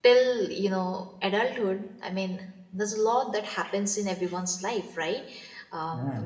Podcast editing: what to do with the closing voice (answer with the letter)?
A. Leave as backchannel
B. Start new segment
A